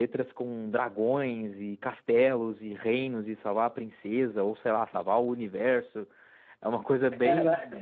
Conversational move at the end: listening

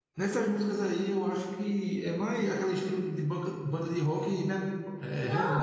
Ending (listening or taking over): taking over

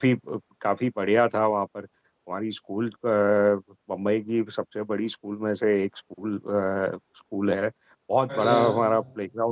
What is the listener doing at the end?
listening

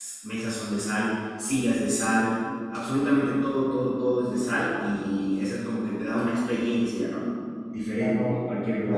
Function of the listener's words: taking over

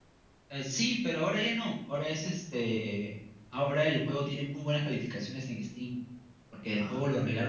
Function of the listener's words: listening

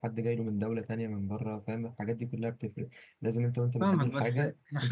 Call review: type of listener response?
taking over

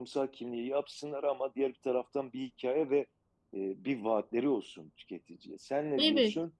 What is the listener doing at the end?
taking over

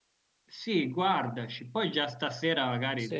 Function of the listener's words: listening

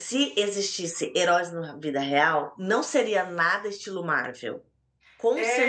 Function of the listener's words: taking over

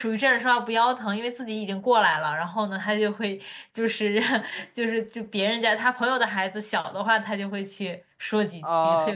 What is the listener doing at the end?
taking over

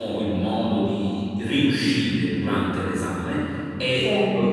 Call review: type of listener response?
listening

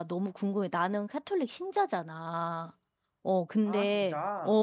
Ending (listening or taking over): listening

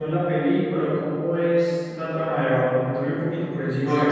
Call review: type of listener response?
taking over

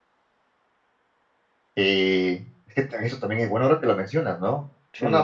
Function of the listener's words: listening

